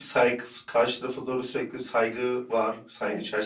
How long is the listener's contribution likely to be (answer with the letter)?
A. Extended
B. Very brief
A